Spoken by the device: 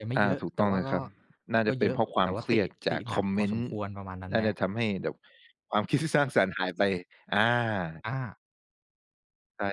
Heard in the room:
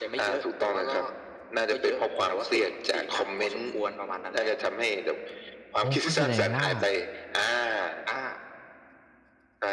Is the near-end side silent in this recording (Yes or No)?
No